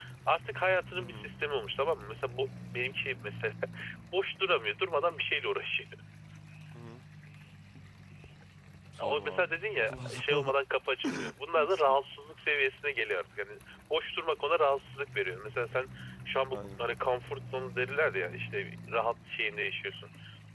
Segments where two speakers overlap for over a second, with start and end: 9.0-10.5

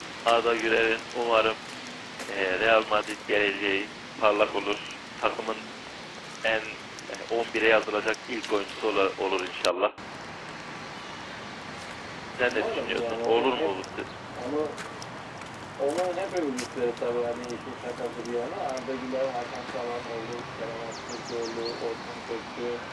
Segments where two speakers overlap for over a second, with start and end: 12.4-13.7

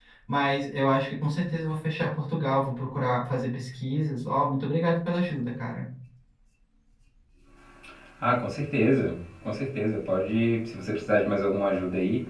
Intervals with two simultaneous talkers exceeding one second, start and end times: none

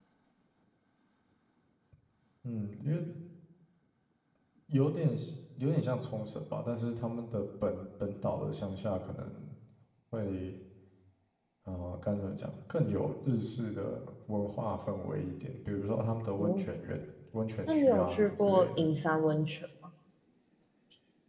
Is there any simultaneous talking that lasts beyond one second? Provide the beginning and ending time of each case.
17.7-18.9

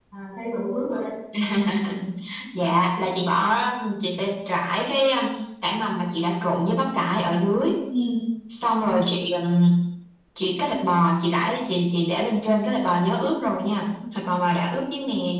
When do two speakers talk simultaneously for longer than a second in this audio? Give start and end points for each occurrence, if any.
none

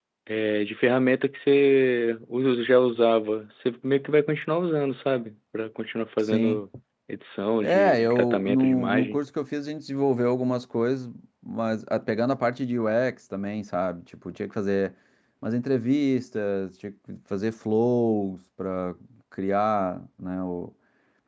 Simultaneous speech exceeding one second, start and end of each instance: 7.6-9.2

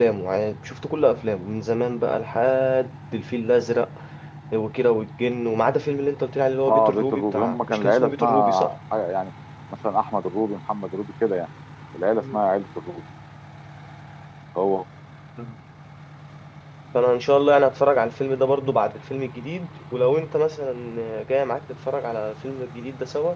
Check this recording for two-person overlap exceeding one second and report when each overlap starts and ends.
6.7-8.7

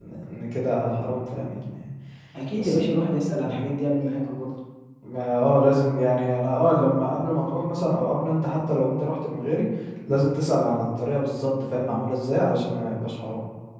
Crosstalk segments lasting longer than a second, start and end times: none

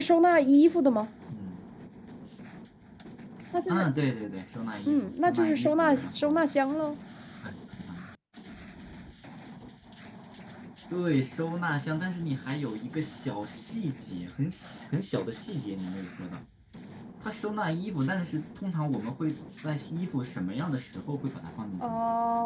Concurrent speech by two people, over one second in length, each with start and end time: 4.9-6.4

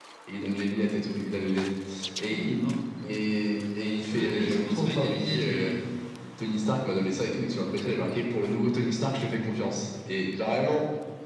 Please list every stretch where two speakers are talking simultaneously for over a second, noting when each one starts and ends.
4.1-5.7

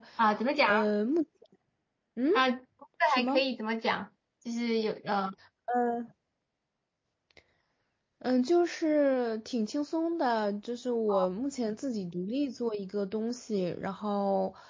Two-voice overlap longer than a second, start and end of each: none

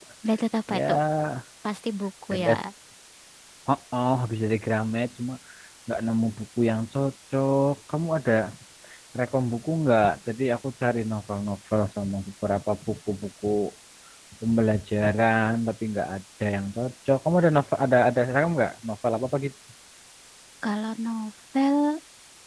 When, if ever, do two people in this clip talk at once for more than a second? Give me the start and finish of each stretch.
none

